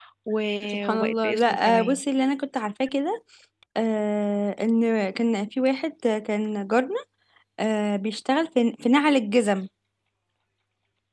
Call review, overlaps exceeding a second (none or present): present